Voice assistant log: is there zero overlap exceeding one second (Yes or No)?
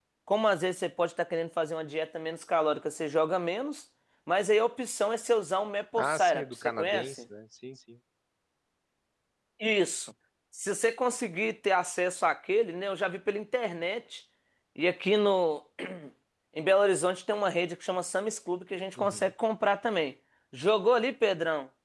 No